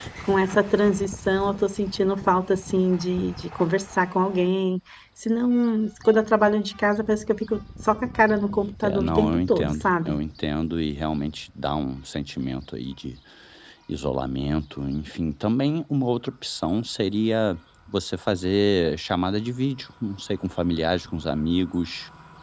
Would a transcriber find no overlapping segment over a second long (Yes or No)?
No